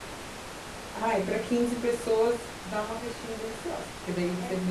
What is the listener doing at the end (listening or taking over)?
listening